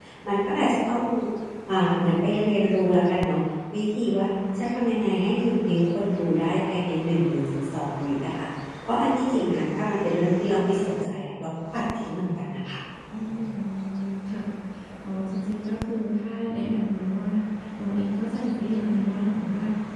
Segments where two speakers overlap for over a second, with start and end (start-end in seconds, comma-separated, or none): none